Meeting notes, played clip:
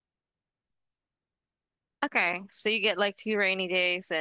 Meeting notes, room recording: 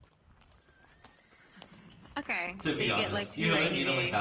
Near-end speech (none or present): present